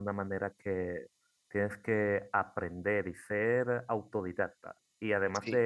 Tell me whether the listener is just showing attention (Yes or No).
Yes